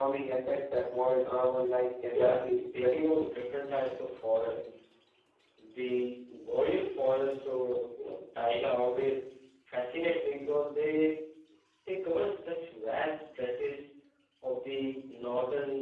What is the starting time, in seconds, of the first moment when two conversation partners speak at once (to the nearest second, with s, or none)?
2 s